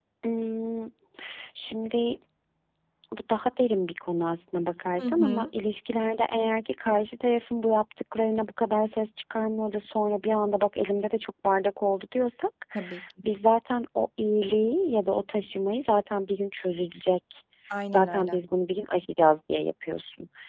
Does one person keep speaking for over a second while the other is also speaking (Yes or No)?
No